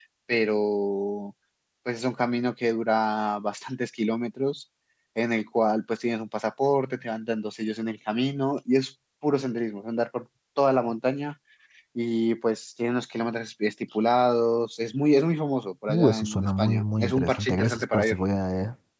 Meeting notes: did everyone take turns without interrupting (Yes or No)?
No